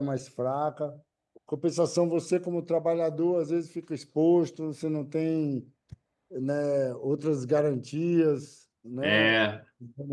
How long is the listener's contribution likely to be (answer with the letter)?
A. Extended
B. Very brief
A